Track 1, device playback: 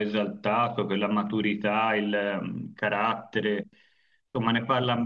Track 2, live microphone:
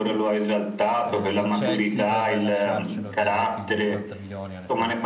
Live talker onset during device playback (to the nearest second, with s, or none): 1 s